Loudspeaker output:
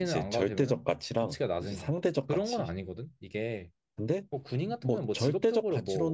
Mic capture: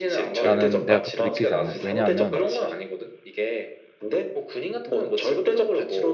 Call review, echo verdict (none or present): present